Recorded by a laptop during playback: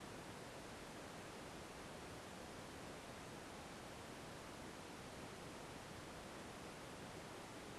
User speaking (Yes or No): No